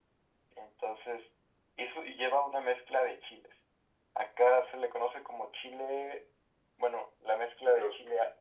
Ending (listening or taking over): taking over